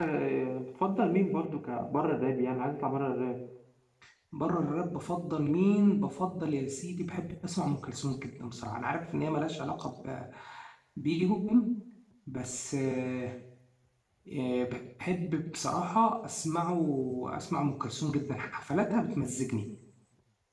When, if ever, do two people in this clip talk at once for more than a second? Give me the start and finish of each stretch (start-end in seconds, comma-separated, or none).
none